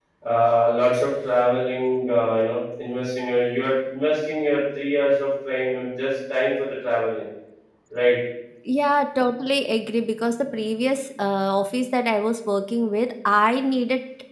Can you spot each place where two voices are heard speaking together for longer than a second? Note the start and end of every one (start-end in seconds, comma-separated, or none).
none